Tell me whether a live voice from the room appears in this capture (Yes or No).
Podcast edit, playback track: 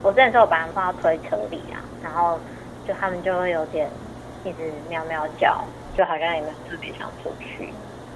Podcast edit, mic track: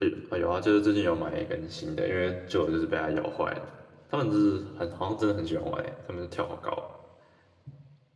Yes